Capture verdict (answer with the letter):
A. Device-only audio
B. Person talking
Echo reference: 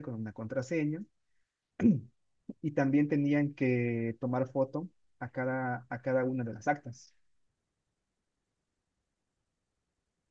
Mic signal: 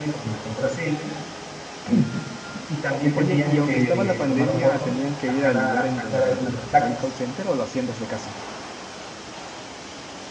B